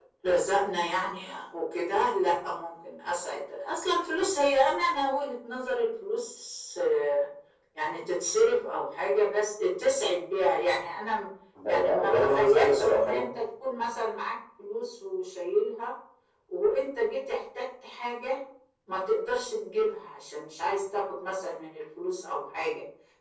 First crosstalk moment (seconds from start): 12 s

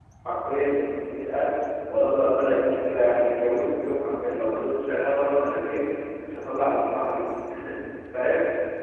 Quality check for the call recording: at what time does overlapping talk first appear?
none

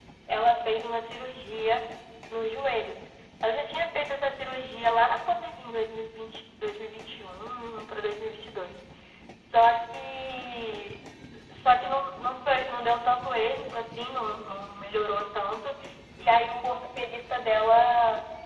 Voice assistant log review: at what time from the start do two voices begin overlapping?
none

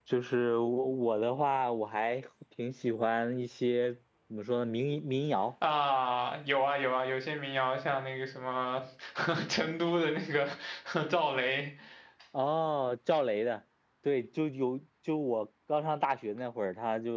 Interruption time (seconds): none

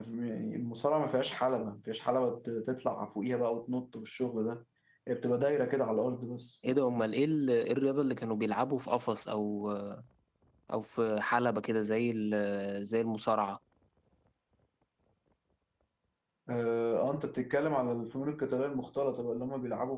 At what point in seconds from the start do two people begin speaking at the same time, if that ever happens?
none

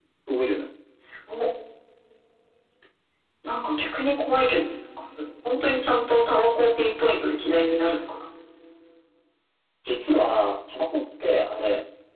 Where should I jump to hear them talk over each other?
none

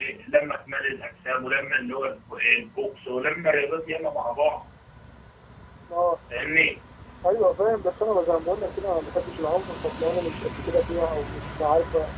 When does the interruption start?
none

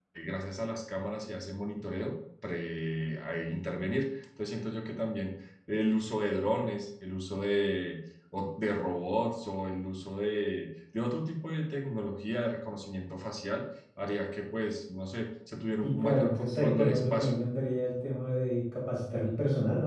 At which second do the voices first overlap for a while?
16 s

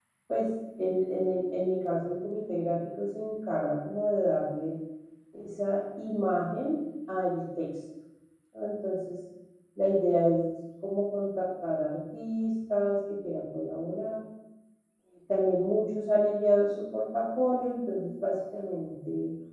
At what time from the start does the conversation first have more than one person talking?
none

